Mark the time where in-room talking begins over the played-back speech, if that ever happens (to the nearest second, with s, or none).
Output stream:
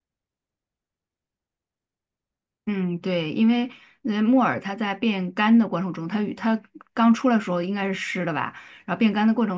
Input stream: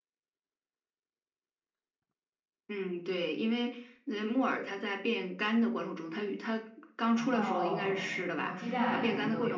7 s